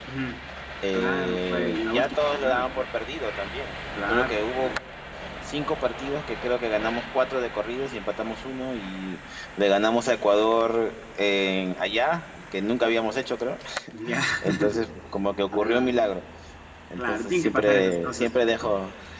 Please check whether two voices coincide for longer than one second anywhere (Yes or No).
Yes